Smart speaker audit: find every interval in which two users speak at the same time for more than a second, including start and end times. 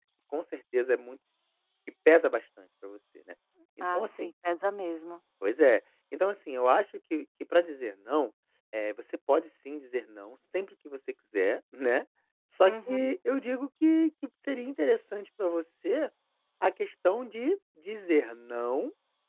none

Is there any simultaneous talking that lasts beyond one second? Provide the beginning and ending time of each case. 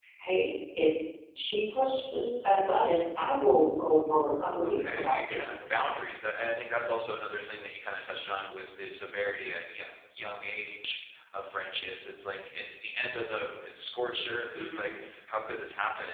4.6-5.8

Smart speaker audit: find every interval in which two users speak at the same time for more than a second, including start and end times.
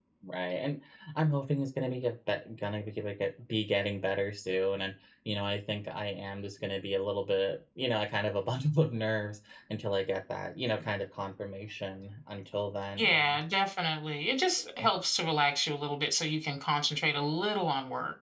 none

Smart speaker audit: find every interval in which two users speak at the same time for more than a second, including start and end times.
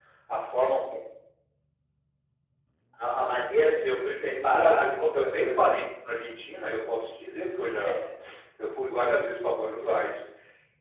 3.8-5.7

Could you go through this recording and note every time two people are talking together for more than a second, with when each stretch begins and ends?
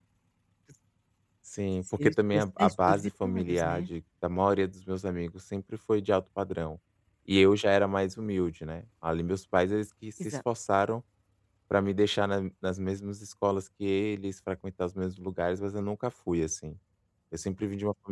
2.0-3.9

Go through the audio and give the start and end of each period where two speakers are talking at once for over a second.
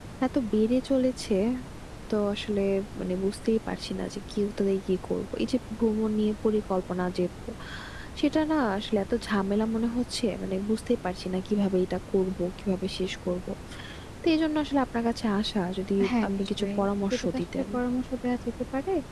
16.3-17.6

